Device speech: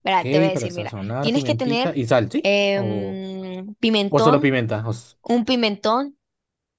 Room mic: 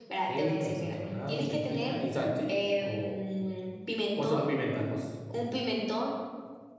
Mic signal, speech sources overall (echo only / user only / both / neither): echo only